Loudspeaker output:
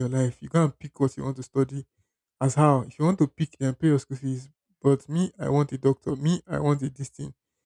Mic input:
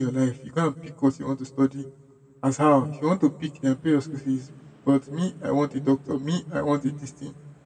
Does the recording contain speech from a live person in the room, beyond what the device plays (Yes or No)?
No